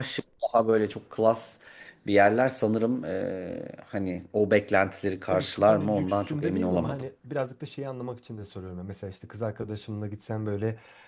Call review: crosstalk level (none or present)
present